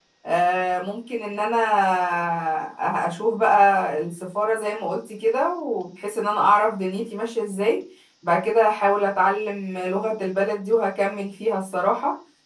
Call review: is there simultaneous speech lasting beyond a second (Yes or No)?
No